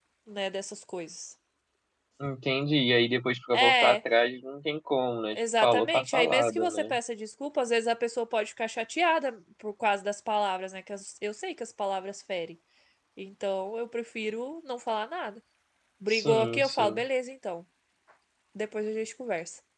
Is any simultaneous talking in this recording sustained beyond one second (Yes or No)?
Yes